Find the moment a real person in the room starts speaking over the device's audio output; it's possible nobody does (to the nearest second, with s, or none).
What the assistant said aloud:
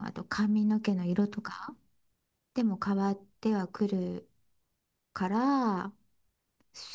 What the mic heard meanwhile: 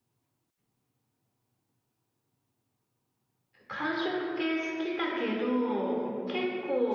4 s